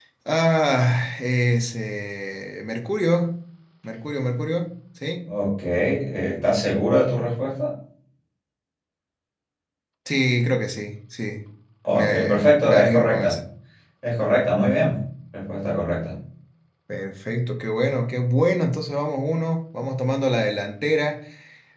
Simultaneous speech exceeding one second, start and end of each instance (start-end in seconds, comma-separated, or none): 11.9-13.4